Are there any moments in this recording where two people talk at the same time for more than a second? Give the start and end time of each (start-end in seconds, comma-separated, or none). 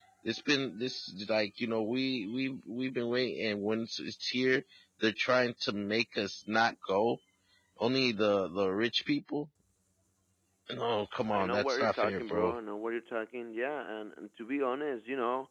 11.3-12.6